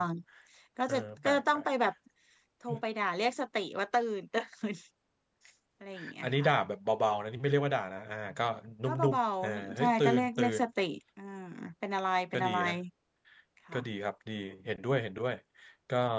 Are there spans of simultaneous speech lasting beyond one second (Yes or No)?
Yes